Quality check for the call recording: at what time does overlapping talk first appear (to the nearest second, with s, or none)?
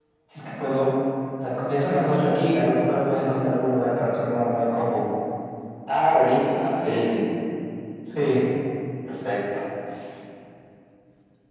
none